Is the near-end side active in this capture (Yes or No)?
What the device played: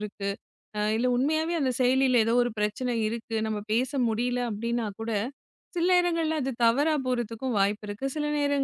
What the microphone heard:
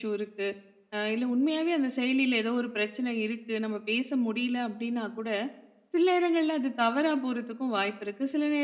No